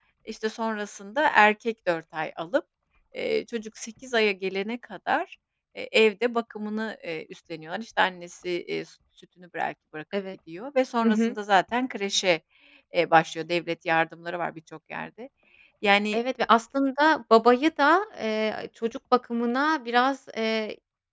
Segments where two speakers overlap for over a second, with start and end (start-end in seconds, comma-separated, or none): none